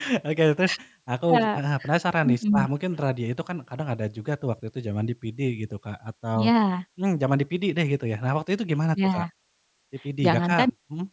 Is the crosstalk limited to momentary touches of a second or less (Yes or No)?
Yes